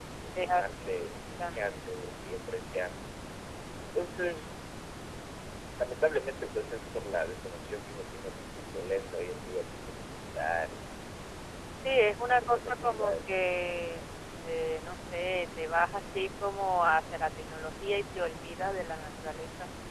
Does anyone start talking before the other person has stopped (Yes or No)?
Yes